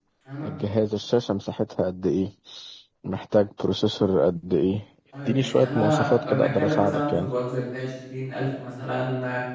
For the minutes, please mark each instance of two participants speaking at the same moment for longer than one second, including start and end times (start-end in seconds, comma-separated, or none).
5.3-7.3